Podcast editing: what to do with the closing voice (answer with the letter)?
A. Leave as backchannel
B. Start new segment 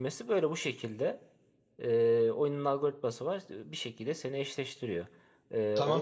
B